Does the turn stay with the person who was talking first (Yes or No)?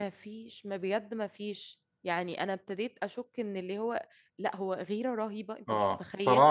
No